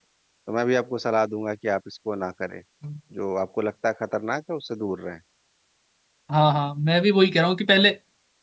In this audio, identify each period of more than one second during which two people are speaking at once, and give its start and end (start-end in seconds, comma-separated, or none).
none